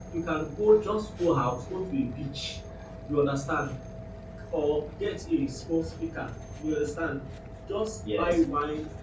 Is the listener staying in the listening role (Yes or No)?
Yes